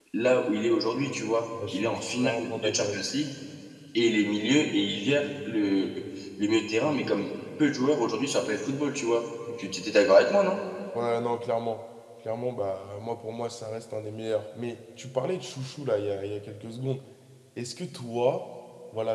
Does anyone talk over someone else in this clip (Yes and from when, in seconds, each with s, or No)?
Yes, from 1.5 s